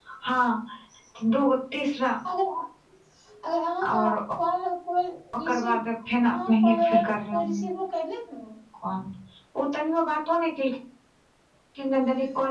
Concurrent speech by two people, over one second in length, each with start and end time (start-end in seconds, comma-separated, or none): 6.3-7.6